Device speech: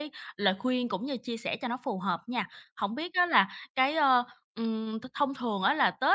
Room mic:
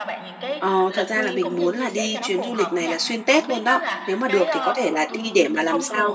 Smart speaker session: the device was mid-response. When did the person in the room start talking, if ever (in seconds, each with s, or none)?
0.6 s